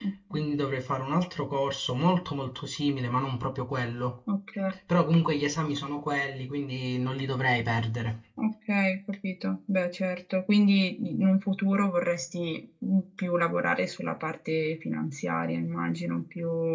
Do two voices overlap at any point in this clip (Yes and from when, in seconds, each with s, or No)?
No